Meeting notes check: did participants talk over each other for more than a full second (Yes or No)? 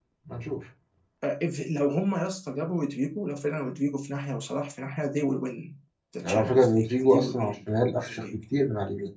Yes